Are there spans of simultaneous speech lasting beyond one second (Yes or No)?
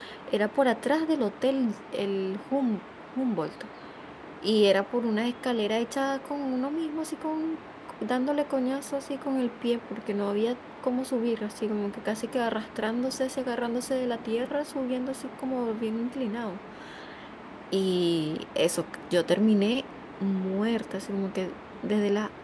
No